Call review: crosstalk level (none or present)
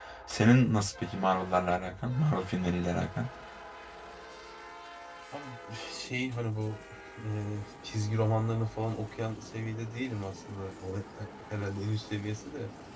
none